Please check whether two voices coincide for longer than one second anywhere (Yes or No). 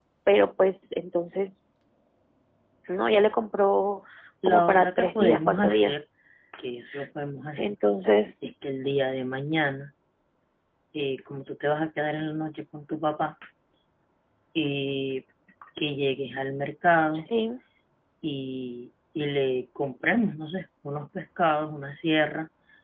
Yes